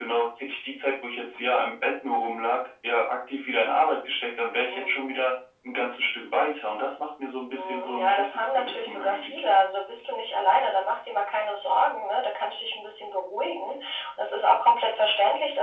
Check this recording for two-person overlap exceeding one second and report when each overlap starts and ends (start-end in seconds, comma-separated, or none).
7.6-9.4